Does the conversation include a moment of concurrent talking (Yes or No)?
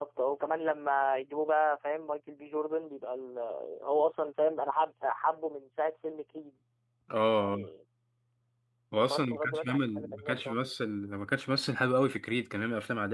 Yes